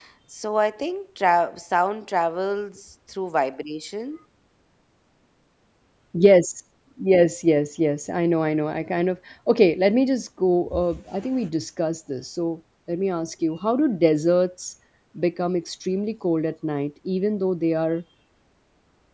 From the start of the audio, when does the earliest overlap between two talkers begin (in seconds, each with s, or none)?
none